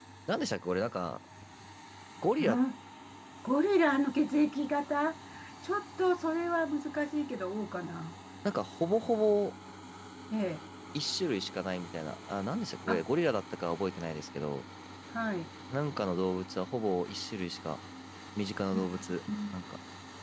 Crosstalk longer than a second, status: none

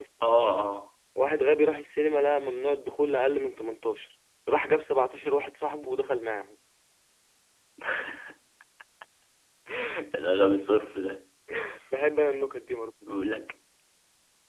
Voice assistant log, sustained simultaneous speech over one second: none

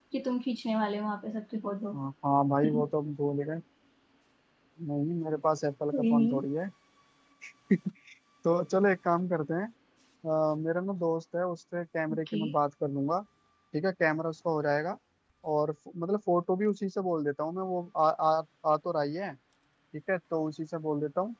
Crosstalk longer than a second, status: none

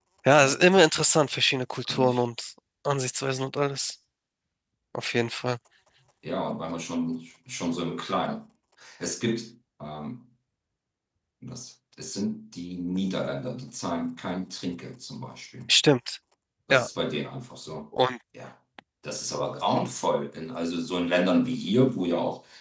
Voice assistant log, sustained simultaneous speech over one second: none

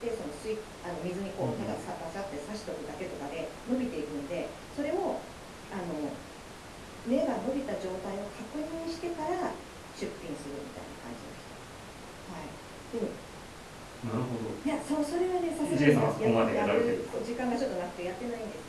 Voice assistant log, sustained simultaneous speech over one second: present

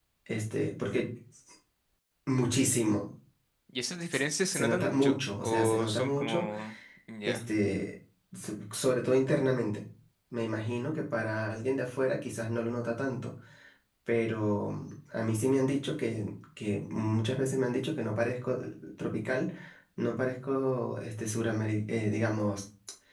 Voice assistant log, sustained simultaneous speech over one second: present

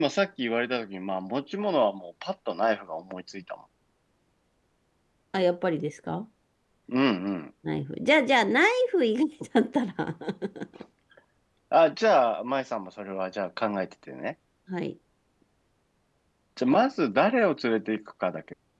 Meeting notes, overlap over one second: none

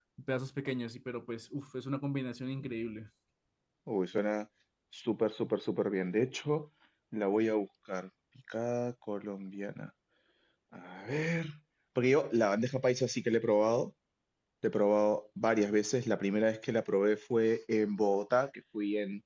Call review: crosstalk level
none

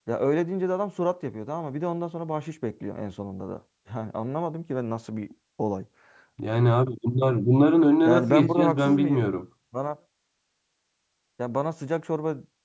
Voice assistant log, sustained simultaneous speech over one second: present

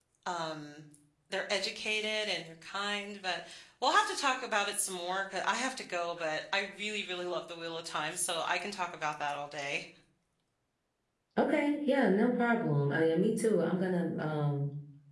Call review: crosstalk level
none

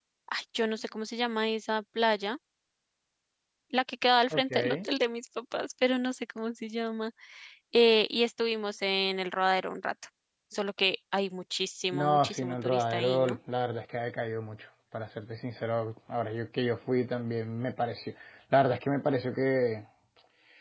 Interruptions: present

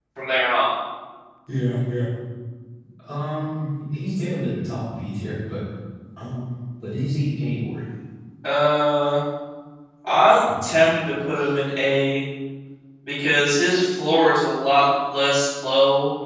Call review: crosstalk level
none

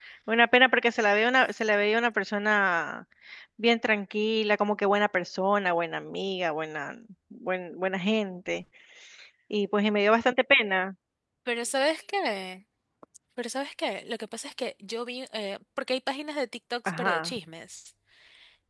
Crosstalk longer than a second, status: none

